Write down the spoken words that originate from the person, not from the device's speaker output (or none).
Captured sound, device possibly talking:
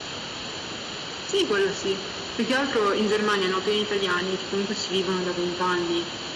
none